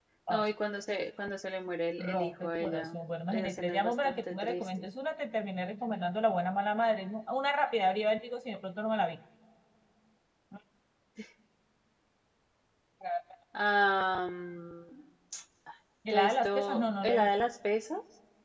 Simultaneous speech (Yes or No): Yes